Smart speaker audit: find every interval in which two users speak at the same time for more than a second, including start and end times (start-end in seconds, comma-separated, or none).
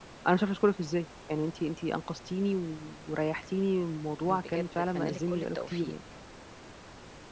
4.2-5.9